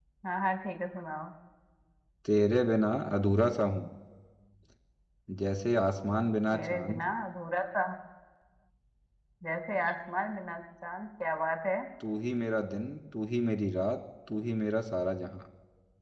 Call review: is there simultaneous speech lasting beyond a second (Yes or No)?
No